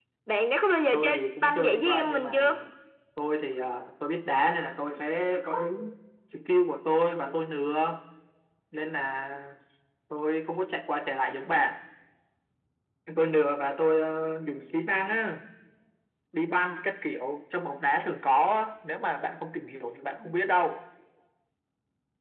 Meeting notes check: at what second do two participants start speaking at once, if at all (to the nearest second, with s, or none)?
1 s